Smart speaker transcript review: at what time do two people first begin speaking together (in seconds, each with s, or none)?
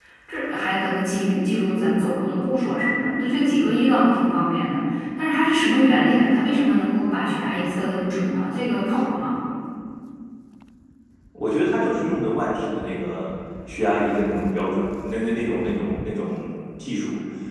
none